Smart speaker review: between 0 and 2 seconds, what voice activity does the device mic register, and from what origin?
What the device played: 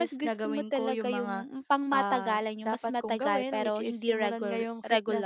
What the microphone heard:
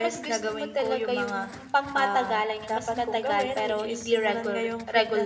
echo only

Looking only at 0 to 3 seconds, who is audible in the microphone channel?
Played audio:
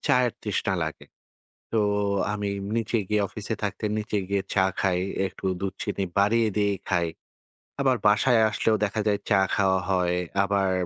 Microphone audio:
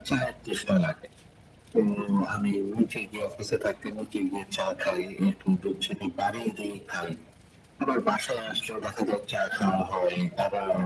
echo only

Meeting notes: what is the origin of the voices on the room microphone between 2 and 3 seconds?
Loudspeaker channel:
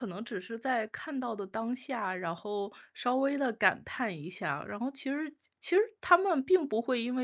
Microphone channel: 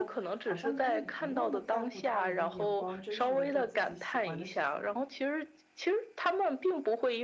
both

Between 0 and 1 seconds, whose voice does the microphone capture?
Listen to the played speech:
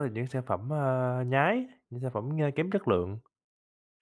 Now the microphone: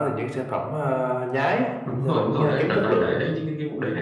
echo only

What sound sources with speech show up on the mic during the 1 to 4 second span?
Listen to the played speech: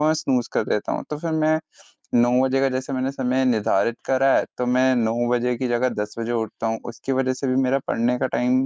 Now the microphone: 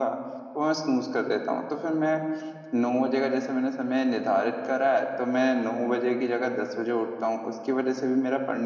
echo only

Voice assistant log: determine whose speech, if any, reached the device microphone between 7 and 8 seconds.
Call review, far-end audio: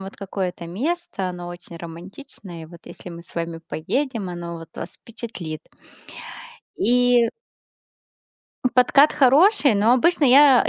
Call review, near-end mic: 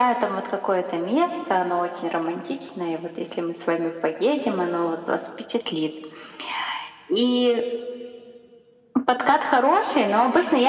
echo only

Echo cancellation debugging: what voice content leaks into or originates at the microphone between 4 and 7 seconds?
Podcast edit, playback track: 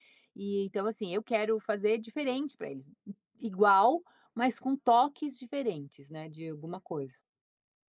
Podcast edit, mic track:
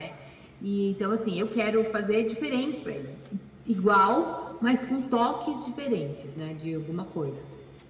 echo only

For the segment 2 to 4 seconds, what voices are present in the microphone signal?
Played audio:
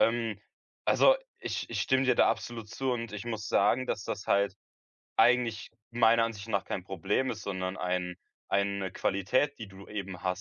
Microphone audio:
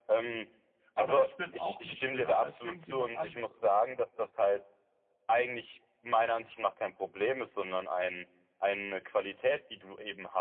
both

